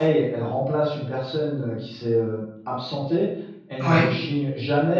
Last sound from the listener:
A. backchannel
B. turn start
A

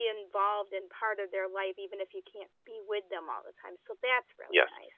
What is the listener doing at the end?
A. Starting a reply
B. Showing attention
A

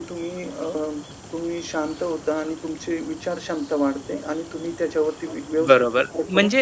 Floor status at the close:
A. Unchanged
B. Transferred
B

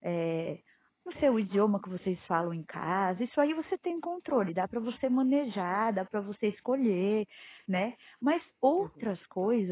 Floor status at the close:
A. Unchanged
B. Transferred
A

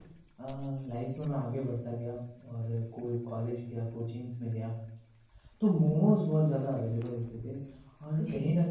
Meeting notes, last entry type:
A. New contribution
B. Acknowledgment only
B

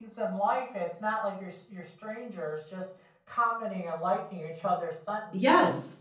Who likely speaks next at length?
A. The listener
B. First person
A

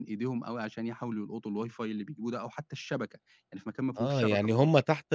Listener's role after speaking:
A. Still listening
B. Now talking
B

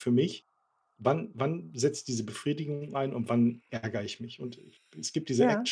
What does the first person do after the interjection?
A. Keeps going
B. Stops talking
A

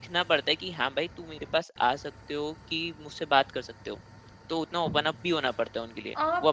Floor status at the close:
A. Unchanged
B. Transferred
B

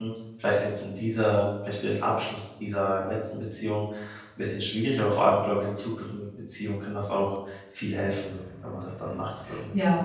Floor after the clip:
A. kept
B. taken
B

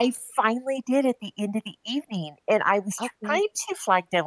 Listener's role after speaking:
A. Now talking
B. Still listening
B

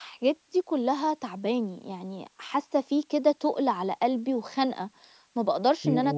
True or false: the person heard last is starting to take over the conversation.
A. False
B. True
B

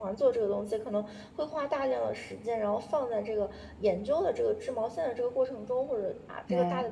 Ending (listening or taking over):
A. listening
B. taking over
A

